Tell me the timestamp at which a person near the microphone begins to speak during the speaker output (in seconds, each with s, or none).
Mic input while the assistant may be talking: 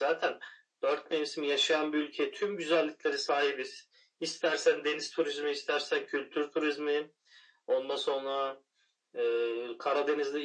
none